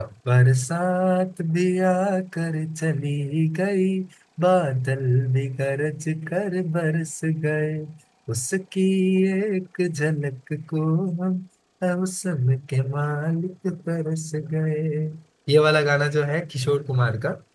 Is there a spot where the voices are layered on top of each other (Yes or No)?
No